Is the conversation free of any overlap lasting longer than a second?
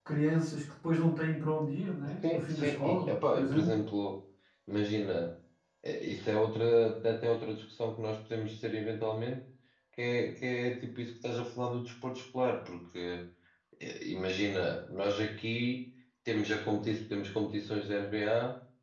No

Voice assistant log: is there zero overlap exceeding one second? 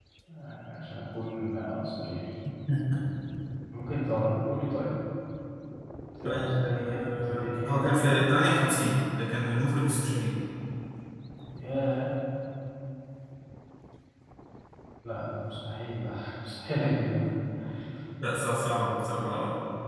No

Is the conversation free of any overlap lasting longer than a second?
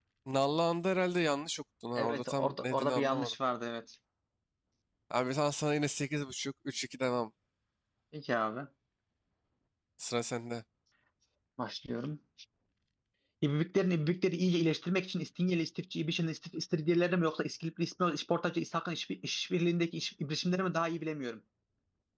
No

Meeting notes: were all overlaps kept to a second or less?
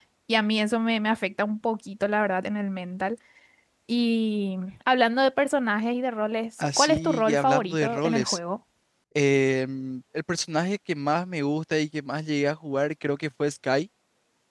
No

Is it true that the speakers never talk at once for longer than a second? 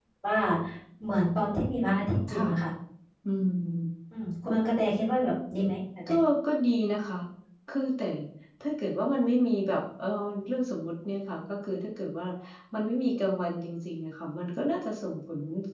Yes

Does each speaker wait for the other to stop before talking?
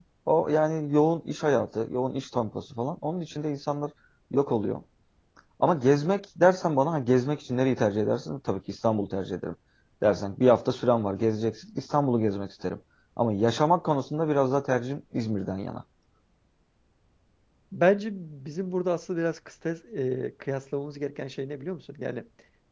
Yes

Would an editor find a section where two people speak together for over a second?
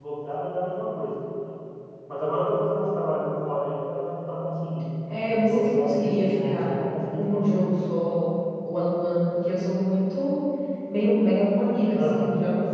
Yes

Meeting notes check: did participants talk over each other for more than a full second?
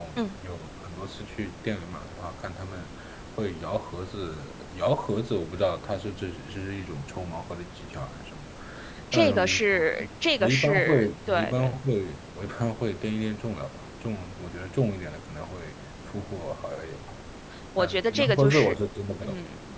Yes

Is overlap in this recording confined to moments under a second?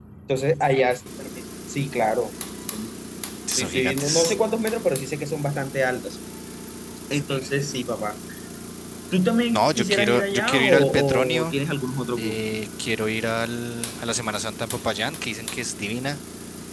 No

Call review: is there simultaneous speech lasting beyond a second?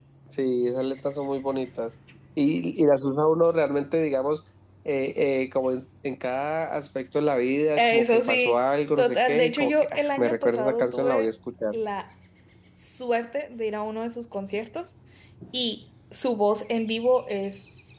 Yes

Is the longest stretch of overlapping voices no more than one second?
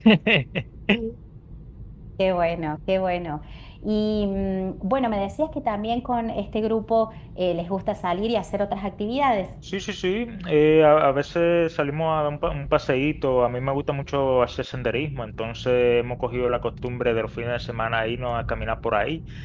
Yes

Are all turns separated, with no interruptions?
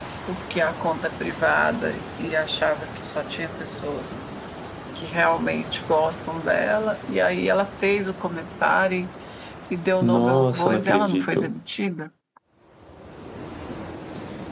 No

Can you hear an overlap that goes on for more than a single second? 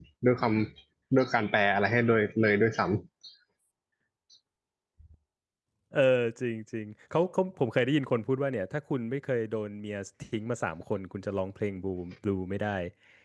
No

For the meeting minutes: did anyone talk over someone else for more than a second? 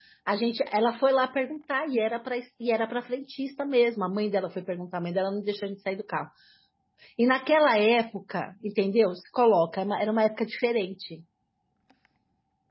No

